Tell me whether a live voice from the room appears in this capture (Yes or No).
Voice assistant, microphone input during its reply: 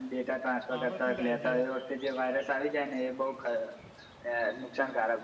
Yes